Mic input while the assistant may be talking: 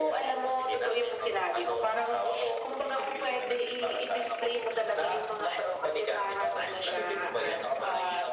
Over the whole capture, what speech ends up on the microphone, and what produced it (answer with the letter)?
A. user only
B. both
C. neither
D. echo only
D